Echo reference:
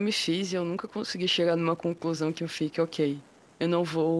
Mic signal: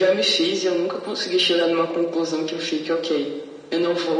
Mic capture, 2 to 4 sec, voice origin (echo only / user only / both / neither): echo only